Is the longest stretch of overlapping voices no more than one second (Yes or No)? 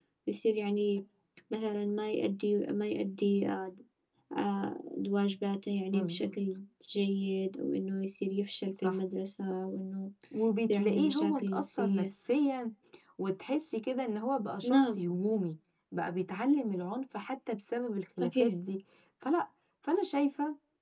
No